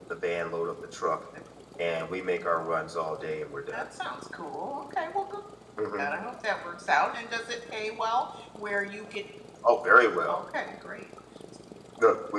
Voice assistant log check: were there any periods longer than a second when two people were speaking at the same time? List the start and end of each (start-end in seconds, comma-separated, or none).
none